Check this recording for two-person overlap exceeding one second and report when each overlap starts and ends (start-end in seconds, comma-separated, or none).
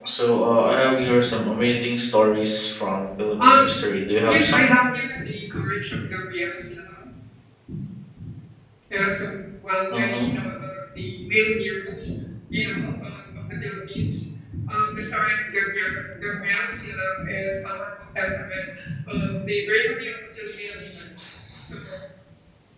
none